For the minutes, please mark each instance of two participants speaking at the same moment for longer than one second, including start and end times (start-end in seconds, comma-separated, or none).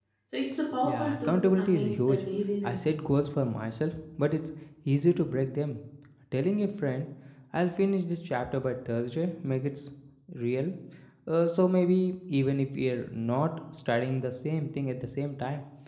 0.8-2.3